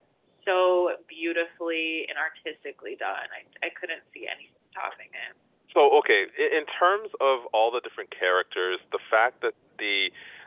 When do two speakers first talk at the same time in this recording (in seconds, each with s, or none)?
none